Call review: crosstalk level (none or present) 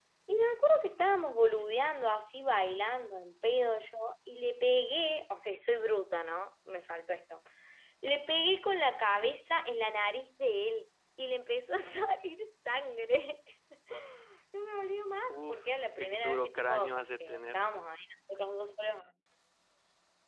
present